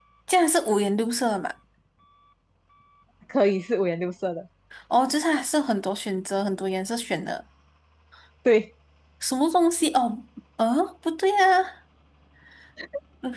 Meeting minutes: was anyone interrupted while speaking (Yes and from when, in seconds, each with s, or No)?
No